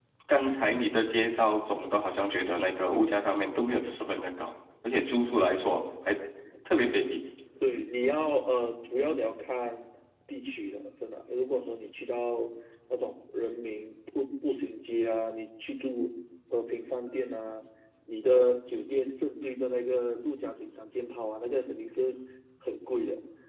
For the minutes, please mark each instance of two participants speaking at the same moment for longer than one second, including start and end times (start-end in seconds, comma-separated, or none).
none